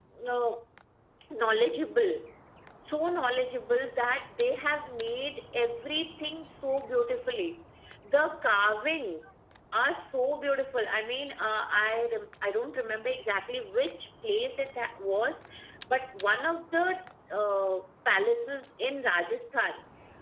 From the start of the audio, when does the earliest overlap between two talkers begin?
none

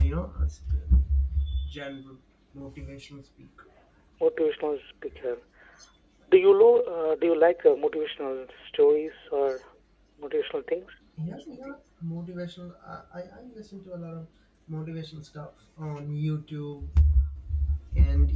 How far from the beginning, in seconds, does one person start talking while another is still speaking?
none

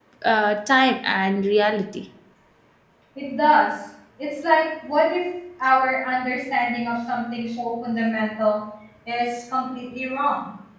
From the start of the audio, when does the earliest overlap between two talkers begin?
none

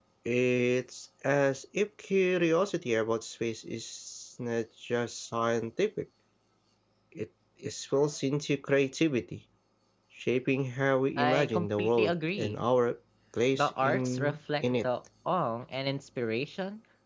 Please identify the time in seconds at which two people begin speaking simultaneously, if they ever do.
11.2 s

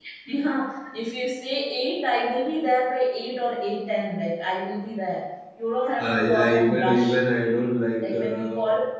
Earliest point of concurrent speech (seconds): 6.0 s

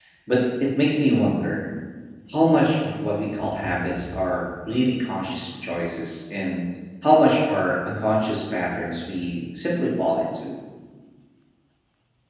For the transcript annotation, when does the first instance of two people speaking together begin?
none

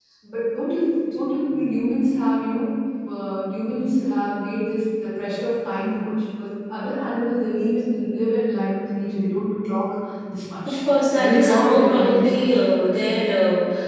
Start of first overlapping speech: 11.2 s

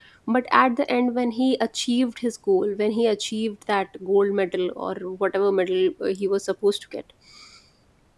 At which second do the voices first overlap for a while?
none

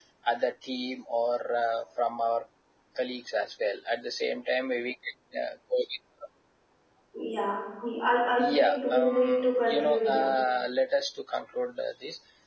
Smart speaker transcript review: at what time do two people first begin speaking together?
8.4 s

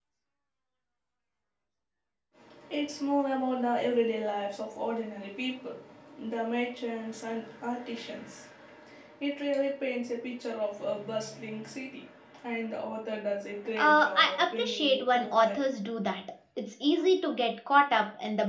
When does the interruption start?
13.8 s

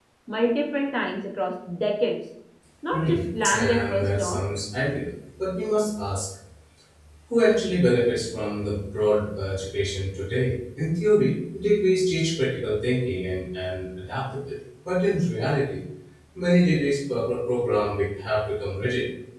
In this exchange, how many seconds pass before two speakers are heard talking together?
2.9 s

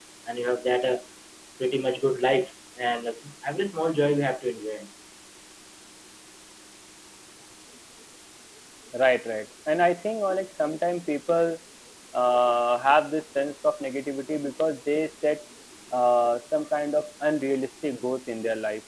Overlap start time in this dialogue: none

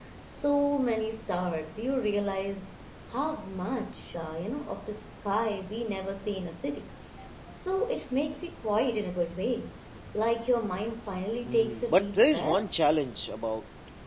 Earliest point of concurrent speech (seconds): 11.5 s

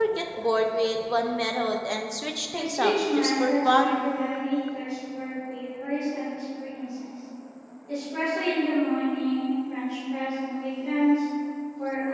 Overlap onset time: 2.5 s

